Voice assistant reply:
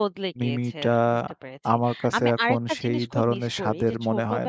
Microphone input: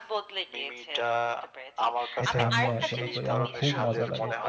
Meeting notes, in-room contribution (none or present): present